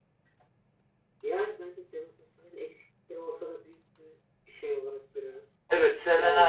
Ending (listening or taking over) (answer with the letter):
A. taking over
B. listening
A